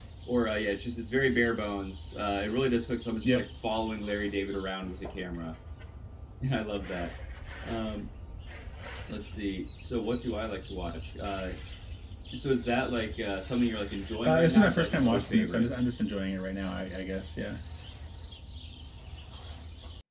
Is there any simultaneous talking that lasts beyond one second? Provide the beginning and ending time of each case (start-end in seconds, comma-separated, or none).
14.2-15.7